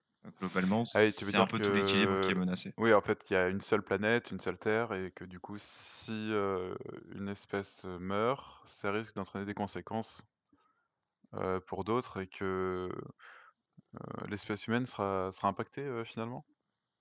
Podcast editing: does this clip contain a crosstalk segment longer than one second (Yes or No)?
Yes